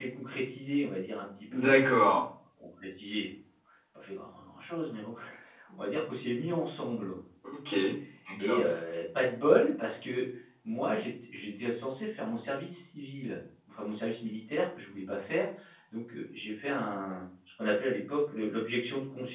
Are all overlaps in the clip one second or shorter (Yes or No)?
Yes